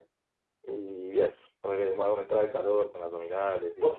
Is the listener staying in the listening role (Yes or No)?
No